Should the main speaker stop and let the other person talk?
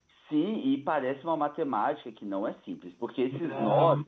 No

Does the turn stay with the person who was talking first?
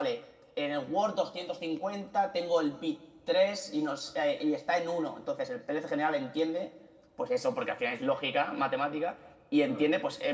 Yes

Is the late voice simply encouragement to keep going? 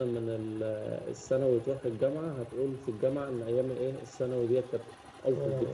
Yes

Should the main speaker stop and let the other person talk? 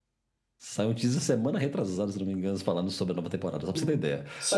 Yes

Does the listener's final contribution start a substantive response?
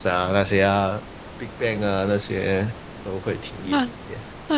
Yes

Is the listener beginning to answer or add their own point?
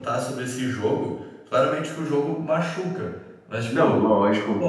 No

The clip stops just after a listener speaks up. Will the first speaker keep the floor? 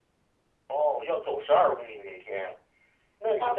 No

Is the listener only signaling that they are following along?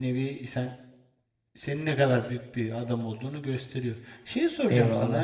Yes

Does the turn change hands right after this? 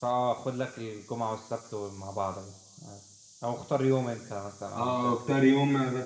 Yes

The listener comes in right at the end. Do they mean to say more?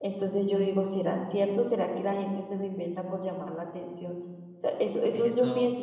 Yes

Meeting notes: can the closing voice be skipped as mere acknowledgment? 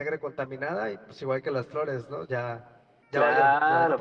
No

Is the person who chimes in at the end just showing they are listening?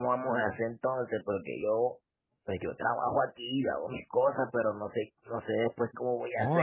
No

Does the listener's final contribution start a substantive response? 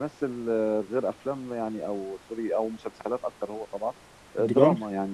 No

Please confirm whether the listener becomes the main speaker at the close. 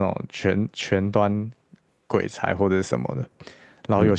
No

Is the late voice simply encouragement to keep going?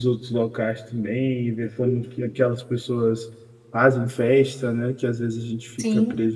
Yes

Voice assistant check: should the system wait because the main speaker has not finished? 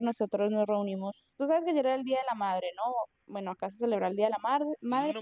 No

